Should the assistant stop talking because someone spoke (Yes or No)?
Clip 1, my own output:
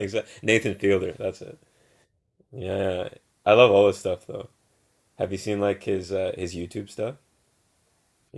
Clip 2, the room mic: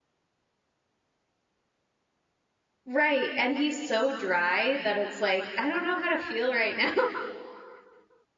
Yes